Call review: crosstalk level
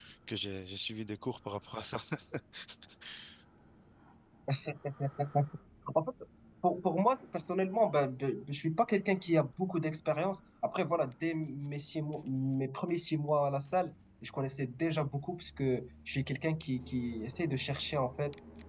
none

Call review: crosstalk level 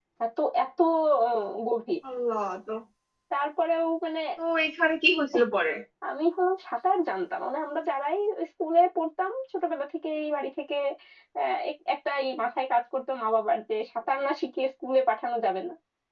none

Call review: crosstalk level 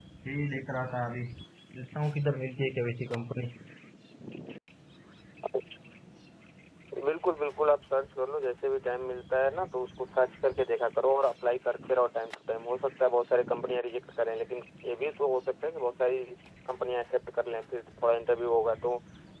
none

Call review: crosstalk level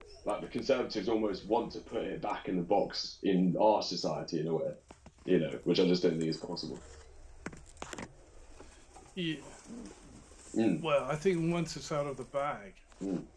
none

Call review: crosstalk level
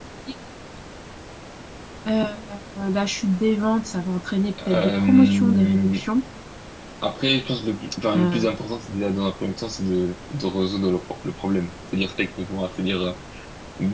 present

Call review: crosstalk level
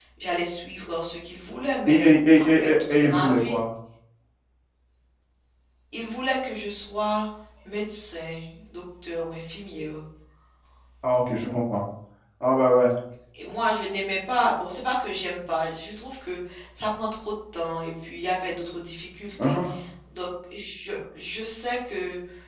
present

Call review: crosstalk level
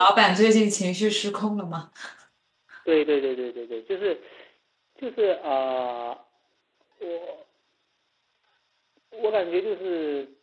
none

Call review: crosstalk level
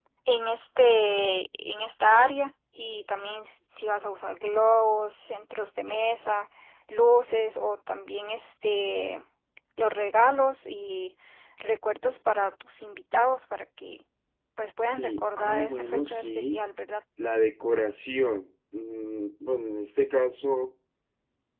present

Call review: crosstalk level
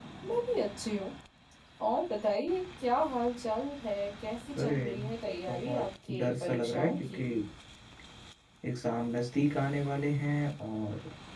present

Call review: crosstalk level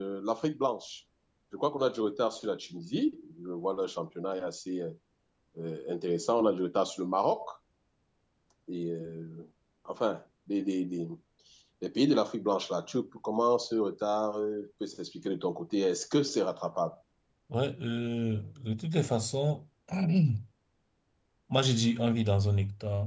none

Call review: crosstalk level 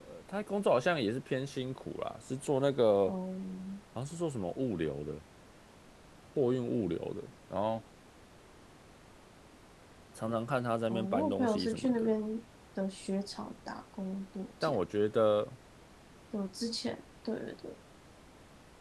present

